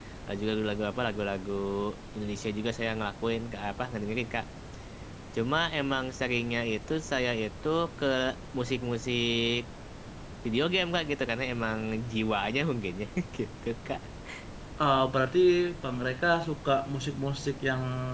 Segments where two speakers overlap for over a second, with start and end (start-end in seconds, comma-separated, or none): none